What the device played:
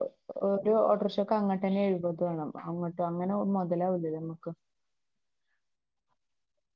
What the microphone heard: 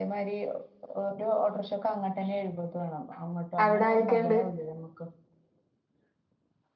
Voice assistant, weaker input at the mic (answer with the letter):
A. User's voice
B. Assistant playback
B